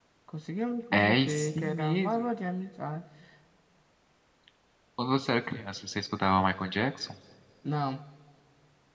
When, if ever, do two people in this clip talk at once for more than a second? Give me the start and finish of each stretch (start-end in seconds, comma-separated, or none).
0.9-2.2